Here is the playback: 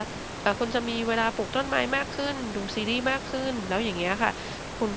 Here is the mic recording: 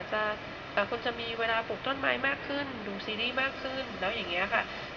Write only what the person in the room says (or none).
none